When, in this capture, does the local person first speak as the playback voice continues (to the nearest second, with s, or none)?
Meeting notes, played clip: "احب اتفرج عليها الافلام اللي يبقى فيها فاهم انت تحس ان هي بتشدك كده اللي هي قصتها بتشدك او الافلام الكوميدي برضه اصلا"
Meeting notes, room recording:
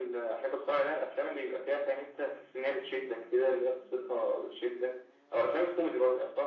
none